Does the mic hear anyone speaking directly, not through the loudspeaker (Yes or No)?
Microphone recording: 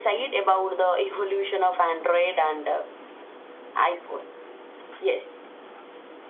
No